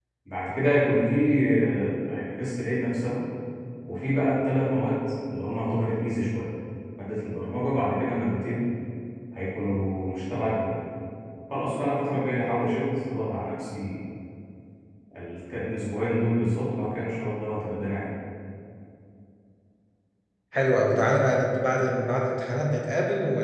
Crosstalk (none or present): none